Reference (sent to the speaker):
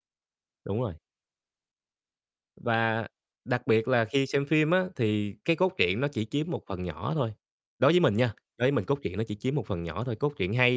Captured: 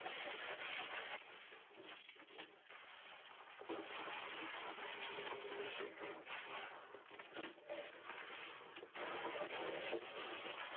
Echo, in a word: none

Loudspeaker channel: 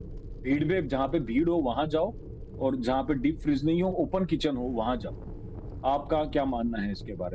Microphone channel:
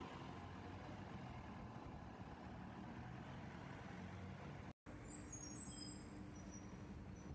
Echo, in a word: none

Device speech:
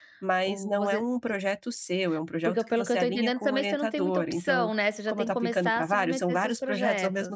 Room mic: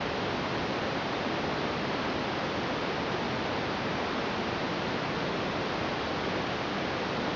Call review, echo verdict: none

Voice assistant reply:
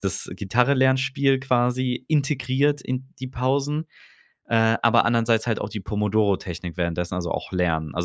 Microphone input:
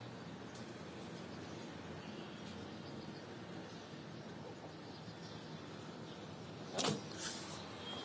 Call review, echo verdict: none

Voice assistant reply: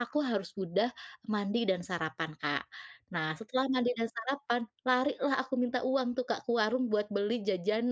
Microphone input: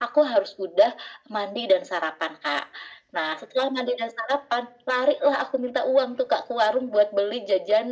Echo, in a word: present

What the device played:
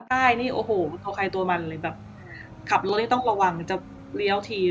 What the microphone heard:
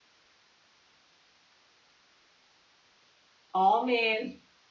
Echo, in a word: none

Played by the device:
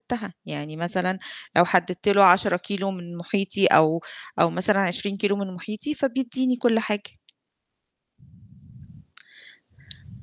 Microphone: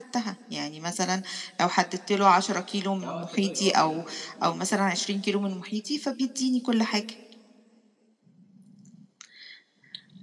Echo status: present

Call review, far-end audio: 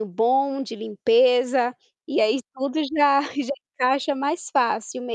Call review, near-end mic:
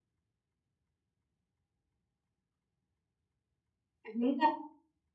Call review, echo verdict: none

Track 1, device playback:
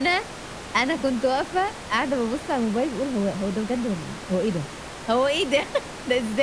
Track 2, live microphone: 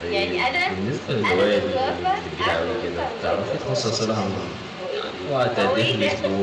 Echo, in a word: present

